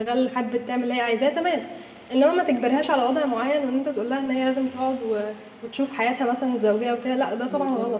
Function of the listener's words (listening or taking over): taking over